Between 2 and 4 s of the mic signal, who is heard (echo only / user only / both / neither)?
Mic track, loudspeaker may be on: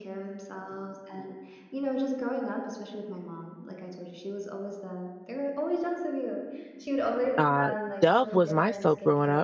echo only